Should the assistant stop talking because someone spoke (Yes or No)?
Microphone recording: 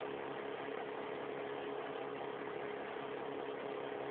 No